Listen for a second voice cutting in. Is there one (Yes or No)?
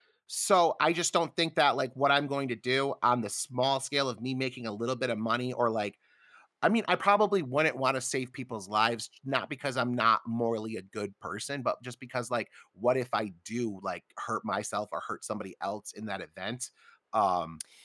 No